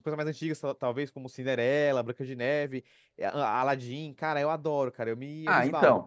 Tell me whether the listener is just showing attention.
No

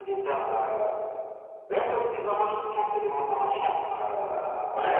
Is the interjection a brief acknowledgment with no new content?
Yes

